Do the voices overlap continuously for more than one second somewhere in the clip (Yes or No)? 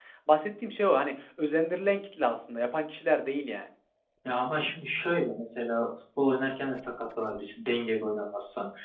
No